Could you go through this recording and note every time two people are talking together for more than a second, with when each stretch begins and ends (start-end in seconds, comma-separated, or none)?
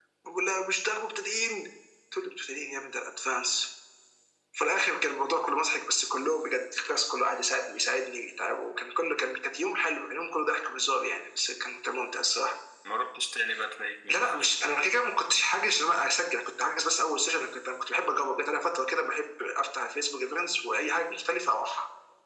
none